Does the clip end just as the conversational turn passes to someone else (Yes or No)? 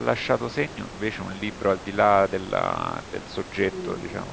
Yes